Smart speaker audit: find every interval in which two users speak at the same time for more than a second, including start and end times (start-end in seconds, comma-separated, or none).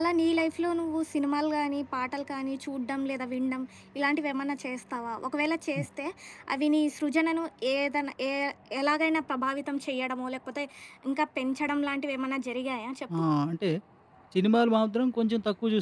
none